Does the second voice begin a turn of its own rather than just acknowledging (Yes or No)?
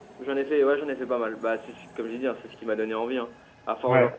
No